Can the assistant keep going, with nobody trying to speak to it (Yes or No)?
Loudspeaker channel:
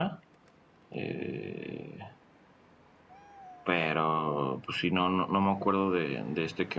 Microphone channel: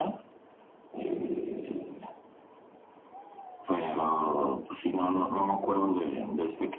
Yes